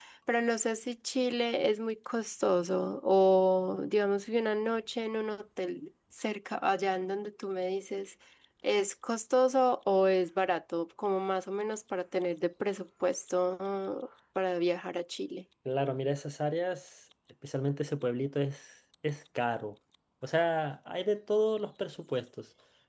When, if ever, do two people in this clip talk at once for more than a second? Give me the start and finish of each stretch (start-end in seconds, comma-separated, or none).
none